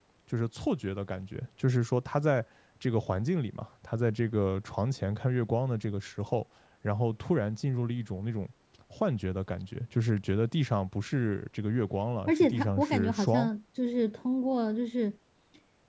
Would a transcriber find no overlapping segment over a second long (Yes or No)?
No